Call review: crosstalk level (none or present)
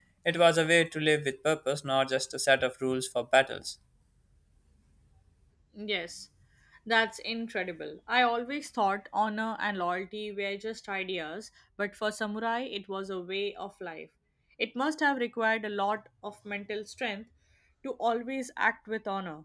none